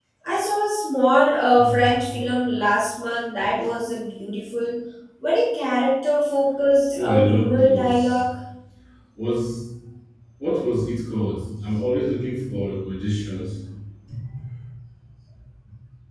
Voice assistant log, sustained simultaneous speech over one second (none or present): present